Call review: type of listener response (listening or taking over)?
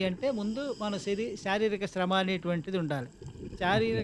taking over